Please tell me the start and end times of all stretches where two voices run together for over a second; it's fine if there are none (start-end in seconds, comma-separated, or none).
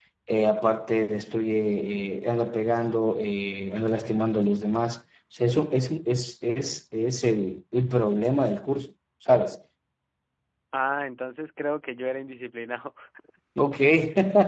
none